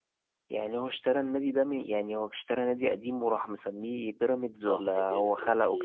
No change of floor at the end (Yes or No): No